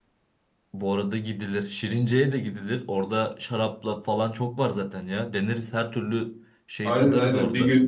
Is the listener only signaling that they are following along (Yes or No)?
No